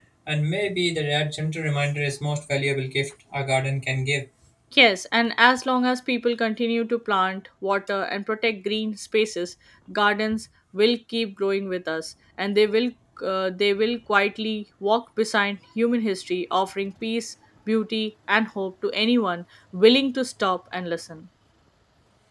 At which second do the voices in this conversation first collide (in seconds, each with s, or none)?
none